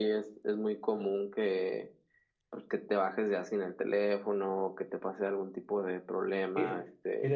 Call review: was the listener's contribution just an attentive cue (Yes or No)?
No